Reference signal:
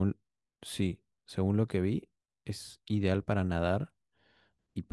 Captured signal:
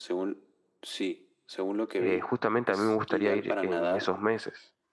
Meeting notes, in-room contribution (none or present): present